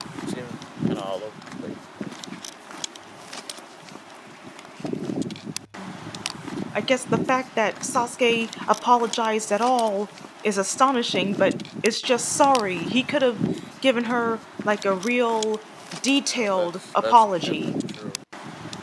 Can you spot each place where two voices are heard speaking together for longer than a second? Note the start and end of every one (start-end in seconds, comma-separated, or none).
16.2-17.7